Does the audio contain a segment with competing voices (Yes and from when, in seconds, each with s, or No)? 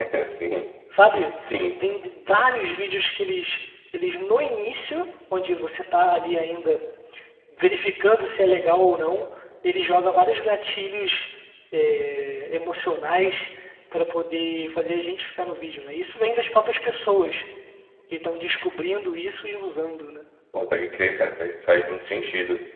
No